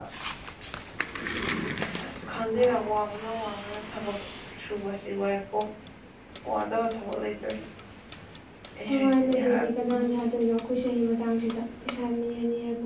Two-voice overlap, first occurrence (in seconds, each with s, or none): 8.9 s